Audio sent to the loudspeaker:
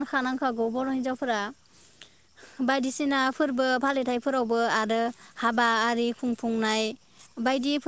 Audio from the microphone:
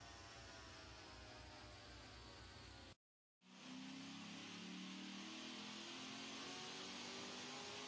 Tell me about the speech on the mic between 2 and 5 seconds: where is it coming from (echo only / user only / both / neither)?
neither